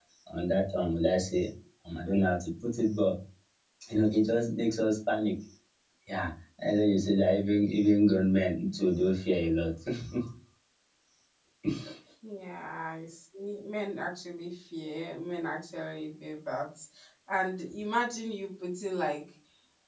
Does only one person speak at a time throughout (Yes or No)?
Yes